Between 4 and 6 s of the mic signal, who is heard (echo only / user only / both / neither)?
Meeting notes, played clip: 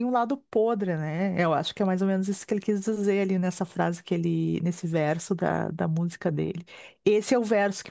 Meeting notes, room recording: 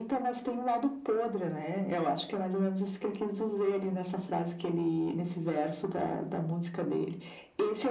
echo only